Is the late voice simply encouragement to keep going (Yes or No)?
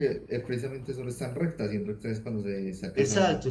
No